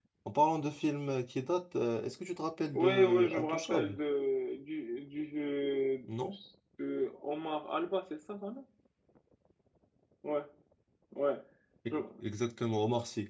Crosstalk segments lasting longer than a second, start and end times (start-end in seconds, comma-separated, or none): 2.7-4.0